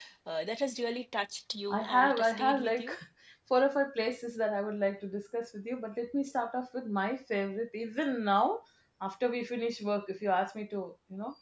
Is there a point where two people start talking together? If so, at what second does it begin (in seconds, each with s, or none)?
1.7 s